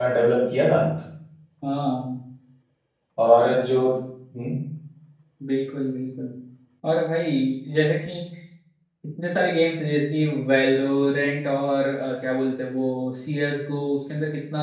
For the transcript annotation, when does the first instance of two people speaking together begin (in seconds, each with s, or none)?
none